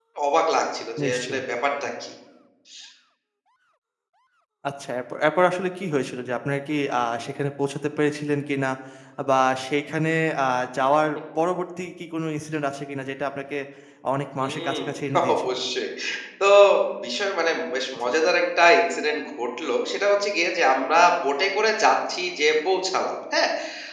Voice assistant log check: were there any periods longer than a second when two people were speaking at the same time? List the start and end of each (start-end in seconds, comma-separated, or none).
none